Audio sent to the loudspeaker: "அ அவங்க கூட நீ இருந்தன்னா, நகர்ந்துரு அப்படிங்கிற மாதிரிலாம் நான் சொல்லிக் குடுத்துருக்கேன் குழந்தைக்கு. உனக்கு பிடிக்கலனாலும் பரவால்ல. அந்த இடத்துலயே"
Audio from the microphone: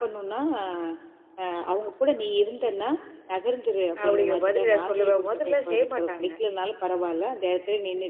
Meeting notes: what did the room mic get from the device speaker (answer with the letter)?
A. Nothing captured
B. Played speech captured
B